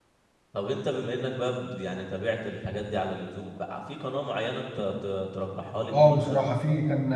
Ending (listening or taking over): taking over